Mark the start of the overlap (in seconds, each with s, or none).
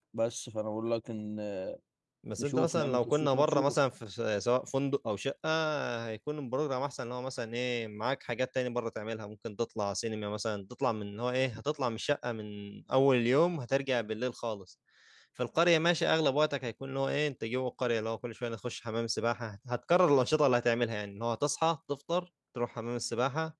2.4 s